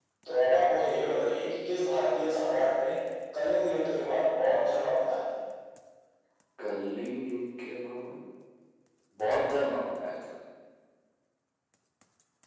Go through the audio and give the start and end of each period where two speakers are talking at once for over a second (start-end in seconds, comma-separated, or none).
none